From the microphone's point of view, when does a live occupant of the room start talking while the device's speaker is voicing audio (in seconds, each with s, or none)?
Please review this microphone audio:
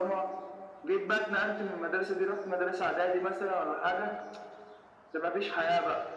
none